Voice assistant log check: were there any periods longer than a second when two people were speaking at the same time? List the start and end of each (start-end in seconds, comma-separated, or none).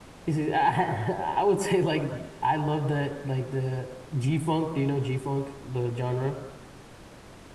none